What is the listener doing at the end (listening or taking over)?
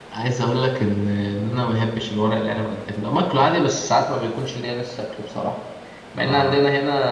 listening